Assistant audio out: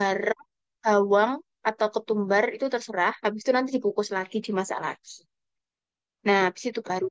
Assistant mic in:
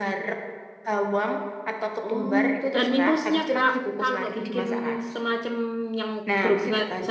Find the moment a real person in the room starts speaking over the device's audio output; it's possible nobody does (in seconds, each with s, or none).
2.1 s